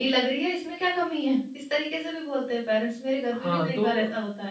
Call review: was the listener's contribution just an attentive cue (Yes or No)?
No